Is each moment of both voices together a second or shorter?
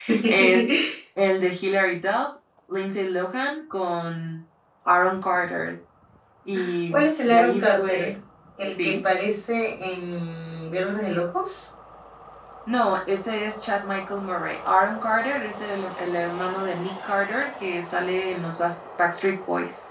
No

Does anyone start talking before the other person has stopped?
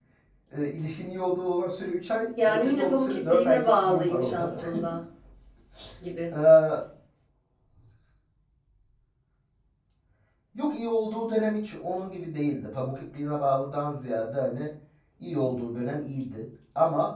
Yes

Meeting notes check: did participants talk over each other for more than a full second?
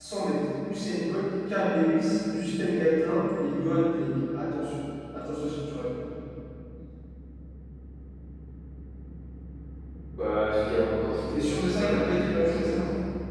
Yes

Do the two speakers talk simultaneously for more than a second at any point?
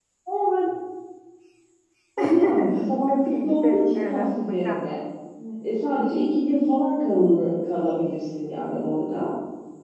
Yes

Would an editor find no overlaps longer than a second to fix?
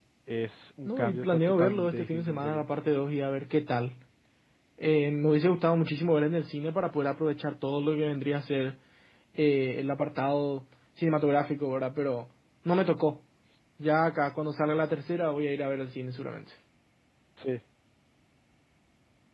No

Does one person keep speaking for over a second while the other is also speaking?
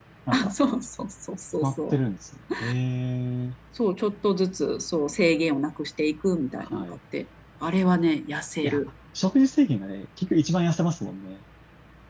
No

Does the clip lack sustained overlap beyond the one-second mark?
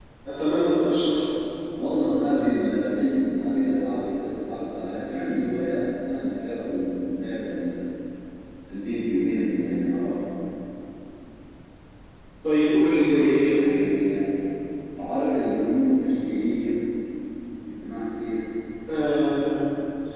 Yes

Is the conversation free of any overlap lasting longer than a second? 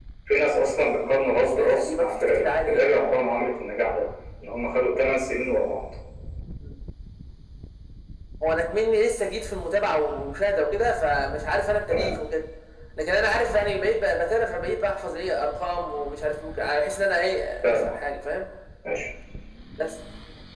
No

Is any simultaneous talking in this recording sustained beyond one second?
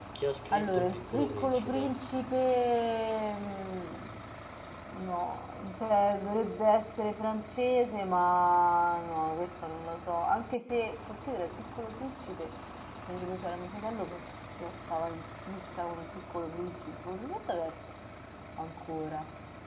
Yes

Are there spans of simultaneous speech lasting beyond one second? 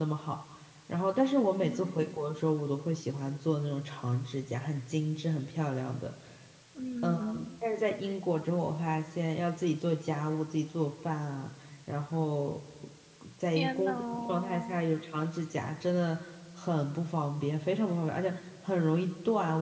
Yes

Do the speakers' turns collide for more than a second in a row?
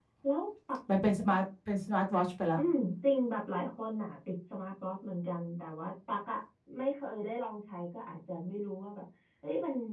No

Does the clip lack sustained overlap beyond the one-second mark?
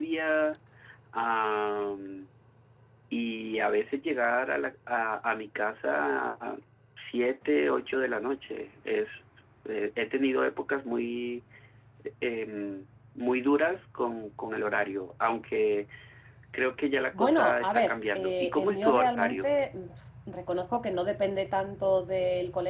No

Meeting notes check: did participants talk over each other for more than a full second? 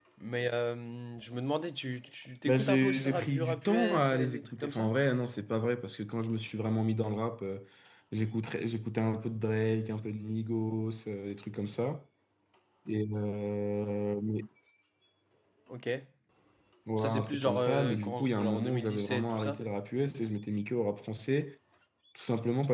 Yes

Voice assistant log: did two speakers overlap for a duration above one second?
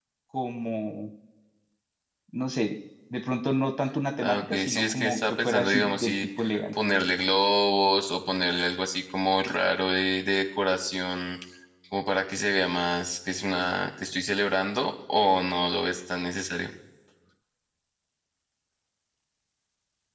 Yes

